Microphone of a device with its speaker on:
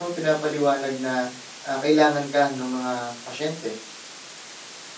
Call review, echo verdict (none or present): none